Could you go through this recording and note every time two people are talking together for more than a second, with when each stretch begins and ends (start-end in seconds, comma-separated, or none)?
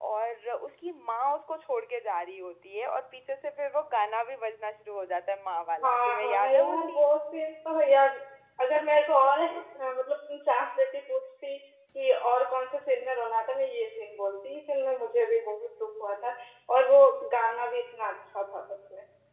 5.8-7.1